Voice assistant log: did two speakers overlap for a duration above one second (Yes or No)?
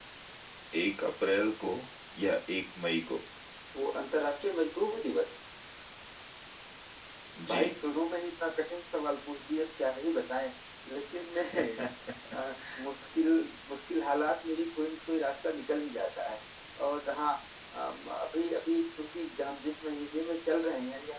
No